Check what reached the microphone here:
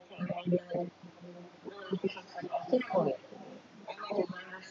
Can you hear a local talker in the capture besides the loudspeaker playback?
No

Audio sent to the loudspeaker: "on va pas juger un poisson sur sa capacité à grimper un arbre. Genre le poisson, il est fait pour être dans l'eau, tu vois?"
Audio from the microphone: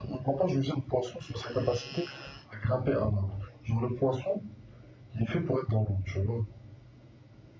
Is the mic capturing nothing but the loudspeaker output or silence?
Yes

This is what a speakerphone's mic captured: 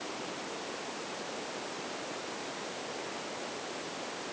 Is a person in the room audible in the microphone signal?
No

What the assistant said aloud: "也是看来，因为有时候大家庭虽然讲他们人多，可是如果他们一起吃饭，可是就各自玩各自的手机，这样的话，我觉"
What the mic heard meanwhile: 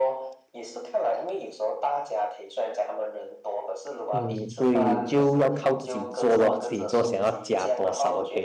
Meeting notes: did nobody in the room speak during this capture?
No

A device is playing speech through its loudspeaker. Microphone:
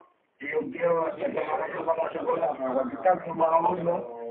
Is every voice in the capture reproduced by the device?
No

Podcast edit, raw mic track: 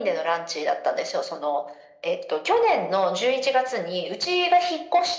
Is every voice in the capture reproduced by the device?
Yes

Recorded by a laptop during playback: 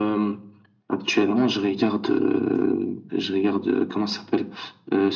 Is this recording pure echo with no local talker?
Yes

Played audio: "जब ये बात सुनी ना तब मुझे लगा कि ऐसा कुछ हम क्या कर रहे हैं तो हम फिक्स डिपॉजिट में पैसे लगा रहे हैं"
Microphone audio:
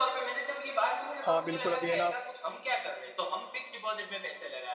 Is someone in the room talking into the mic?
Yes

